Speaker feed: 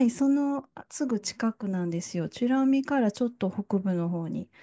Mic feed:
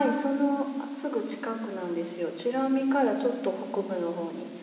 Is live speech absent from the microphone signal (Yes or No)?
Yes